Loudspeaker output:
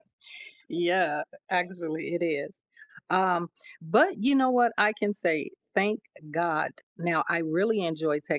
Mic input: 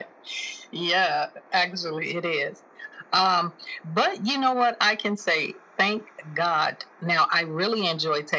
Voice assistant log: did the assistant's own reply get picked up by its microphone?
Yes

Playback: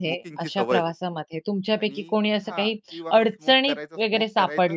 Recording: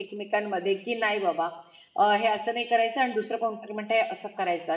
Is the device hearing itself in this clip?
No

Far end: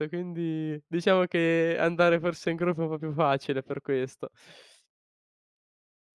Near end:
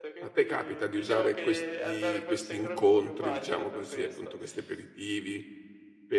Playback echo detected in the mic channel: Yes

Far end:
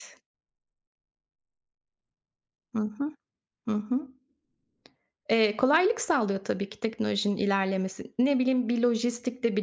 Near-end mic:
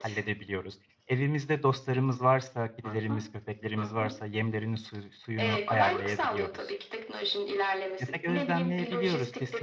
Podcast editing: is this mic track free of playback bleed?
No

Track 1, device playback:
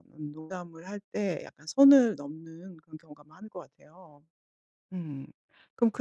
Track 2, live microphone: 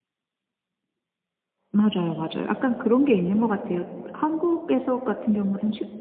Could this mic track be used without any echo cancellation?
Yes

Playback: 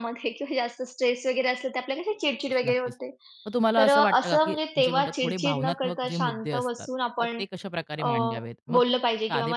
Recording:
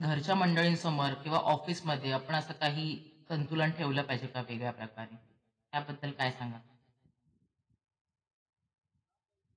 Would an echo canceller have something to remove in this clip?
No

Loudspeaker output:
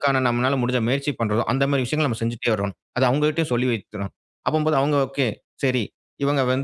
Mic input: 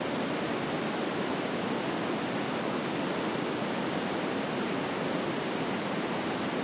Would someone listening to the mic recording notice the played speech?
No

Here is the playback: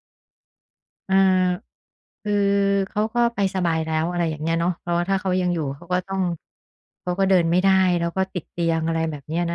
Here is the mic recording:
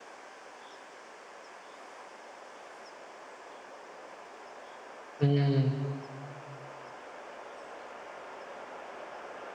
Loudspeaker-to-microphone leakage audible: No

